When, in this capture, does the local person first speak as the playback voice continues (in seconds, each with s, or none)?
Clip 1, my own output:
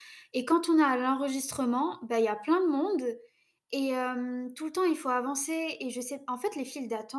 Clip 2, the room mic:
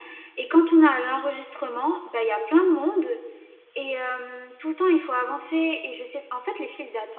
none